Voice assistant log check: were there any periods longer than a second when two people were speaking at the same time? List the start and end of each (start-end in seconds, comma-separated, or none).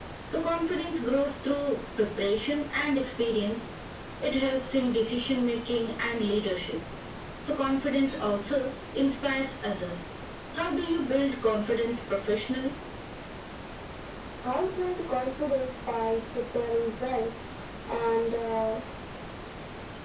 none